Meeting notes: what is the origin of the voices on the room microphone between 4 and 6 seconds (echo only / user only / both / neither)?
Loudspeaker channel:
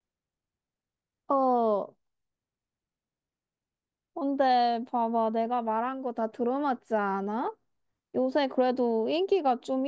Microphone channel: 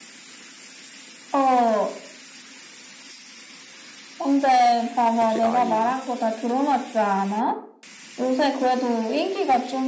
both